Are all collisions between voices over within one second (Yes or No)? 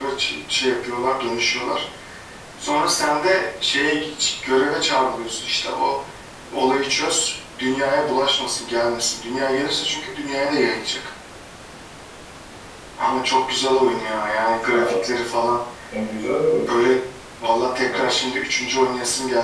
Yes